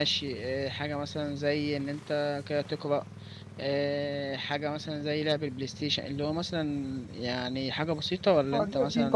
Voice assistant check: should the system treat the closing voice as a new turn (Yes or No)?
Yes